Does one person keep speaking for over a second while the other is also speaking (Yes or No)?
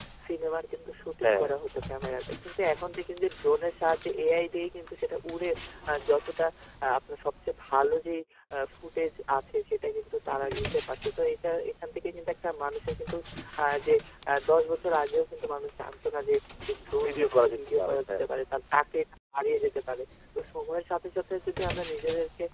Yes